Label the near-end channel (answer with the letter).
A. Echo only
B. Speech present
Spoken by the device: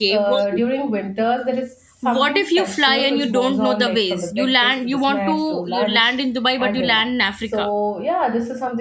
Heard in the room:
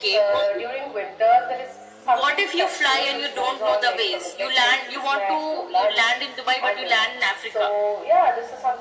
A